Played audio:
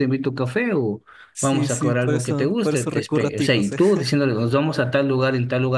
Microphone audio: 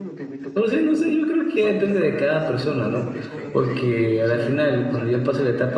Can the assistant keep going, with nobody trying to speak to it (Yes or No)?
No